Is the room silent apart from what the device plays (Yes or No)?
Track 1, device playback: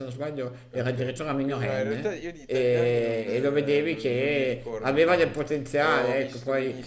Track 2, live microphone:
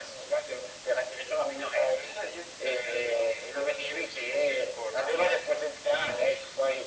Yes